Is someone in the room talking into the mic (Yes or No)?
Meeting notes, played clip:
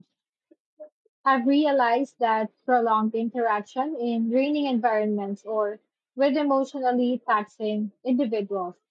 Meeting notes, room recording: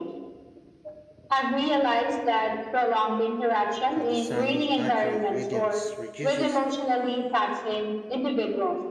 Yes